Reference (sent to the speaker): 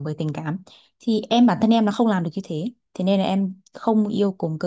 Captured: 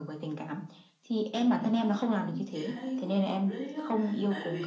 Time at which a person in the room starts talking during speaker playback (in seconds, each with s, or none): 1.3 s